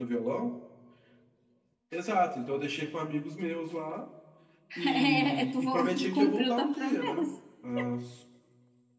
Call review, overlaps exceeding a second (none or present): present